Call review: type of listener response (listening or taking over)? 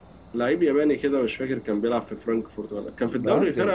listening